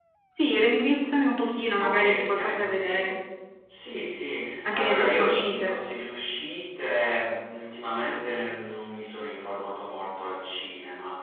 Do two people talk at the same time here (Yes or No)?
Yes